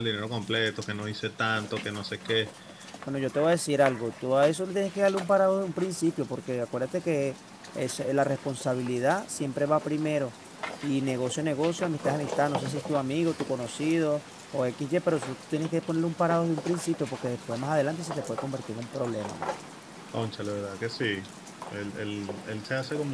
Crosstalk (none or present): none